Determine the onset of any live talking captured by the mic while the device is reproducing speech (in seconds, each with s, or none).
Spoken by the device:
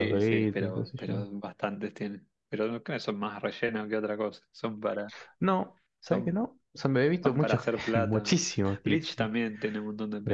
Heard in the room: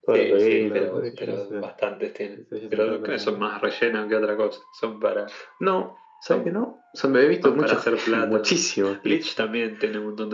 0.6 s